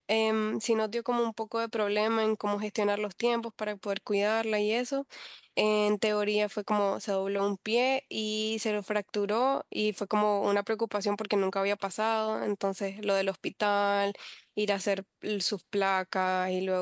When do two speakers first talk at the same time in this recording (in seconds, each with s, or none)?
none